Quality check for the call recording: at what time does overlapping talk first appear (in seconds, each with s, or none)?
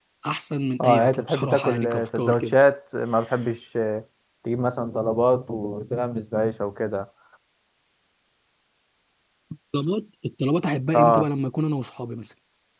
0.8 s